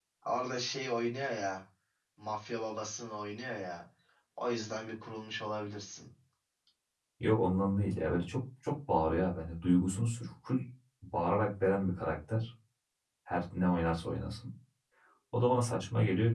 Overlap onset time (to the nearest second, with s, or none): none